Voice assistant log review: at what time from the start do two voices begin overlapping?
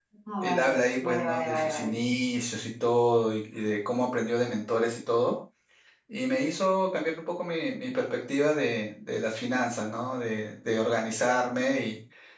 0.6 s

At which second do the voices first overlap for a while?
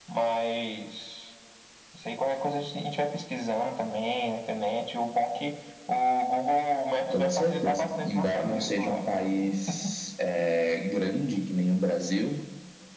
7.0 s

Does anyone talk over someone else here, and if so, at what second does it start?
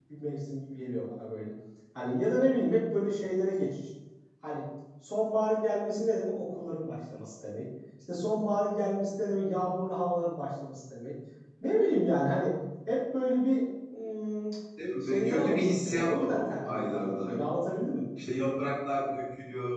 15.0 s

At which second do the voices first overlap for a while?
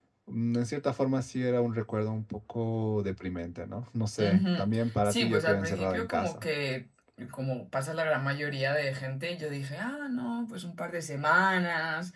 4.2 s

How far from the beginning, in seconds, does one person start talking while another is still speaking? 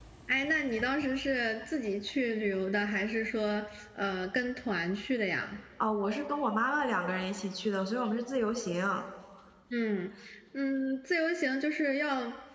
none

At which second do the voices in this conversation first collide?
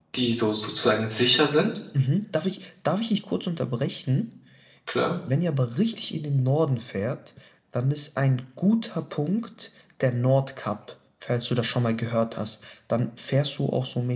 none

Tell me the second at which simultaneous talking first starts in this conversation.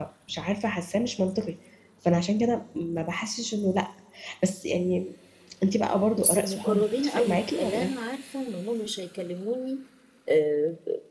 6.1 s

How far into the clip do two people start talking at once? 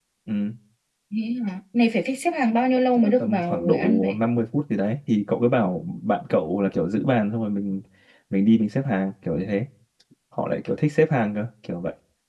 3.0 s

